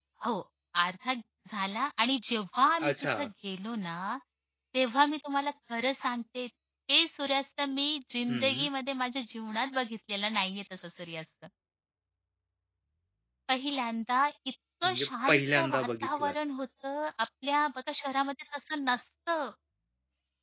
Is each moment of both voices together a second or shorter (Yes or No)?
No